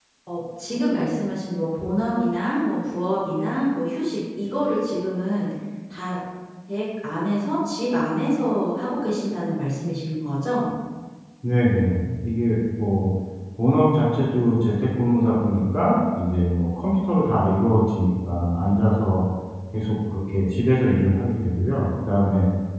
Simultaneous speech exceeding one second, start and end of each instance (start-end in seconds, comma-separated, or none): none